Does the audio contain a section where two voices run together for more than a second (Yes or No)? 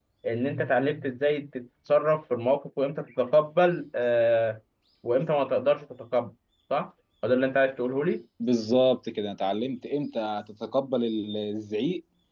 No